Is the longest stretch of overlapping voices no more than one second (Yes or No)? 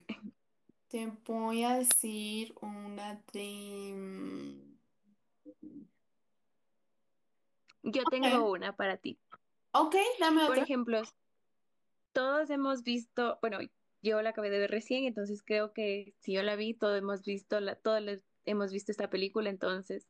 Yes